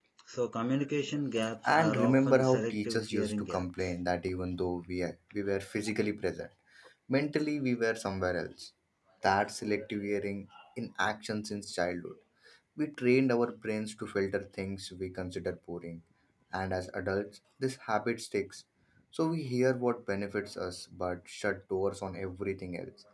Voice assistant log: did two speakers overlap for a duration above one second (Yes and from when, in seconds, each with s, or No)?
Yes, from 1.6 s